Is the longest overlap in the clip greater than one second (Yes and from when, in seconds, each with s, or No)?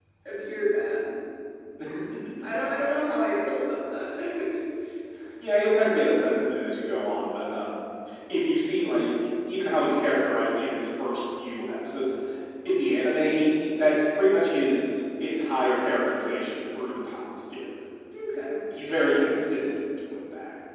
No